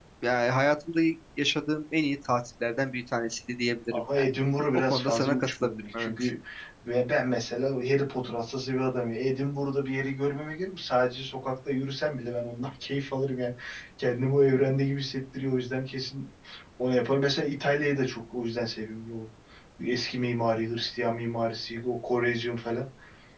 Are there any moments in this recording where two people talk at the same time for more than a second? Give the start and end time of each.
4.9-6.1

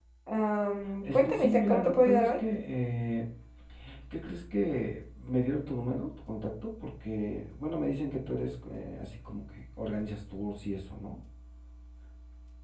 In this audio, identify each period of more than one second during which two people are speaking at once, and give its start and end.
1.0-2.4

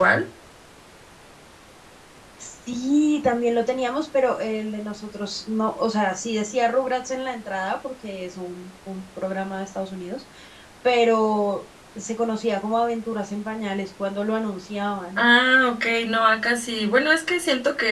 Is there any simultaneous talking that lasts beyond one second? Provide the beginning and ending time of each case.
none

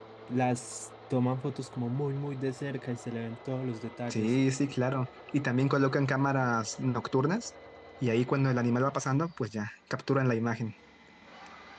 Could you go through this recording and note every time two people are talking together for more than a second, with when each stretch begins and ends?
none

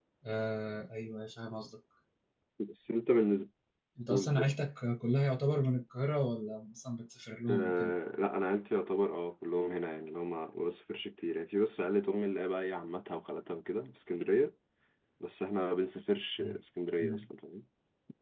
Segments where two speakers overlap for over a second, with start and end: none

